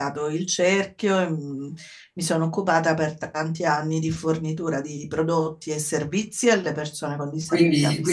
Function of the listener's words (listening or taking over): taking over